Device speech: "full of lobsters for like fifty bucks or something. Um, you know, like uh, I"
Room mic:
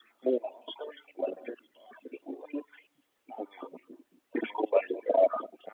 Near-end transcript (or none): none